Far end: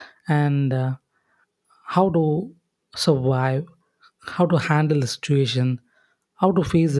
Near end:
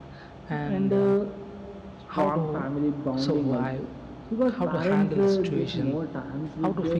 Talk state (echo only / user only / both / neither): both